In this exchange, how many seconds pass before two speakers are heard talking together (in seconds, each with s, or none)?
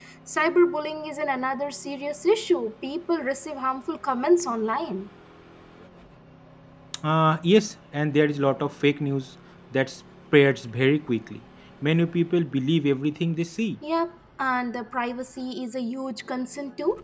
none